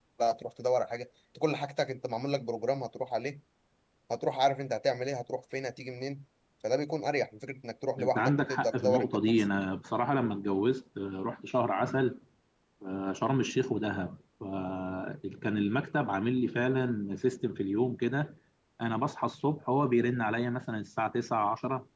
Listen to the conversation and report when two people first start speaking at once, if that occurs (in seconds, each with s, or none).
8.0 s